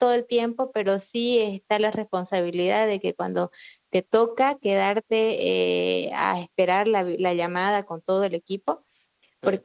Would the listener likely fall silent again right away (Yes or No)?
Yes